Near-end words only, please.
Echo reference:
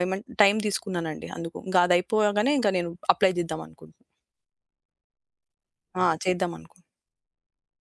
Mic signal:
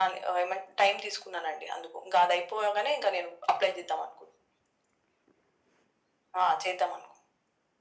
none

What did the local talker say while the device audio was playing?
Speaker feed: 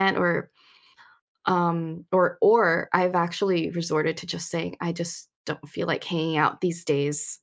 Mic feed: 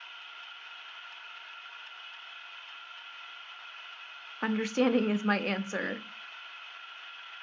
understanding is my answer.

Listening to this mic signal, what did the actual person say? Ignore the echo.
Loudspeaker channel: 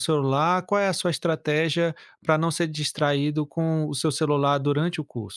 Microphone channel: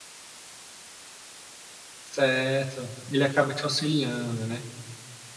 Certo. Ele acaba te auxiliando, né.

